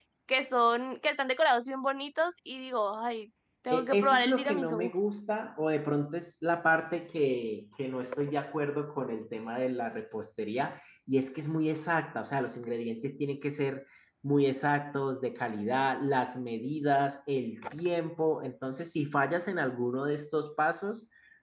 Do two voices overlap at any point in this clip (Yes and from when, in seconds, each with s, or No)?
Yes, from 3.7 s